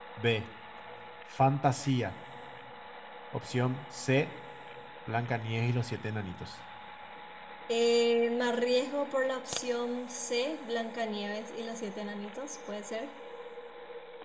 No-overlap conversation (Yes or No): Yes